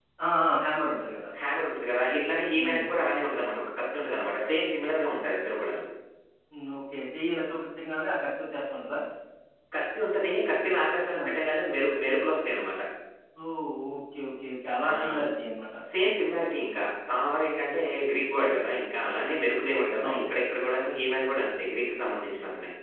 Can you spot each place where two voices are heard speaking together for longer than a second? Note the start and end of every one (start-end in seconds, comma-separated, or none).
none